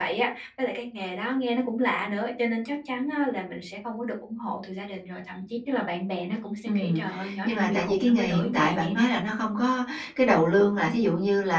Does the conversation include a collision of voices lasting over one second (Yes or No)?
Yes